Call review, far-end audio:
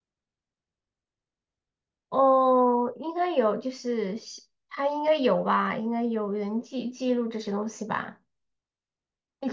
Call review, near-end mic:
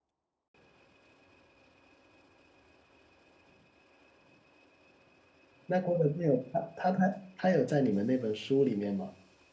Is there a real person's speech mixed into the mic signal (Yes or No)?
Yes